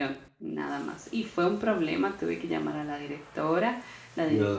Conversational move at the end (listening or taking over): listening